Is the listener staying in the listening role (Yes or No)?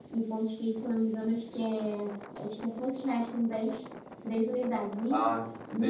No